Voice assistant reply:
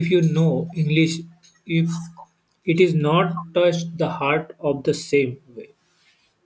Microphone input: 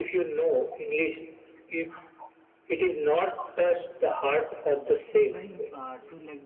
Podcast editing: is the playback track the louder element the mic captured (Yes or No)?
Yes